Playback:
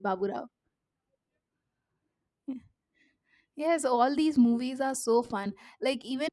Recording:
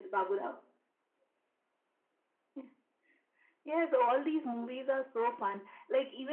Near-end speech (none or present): none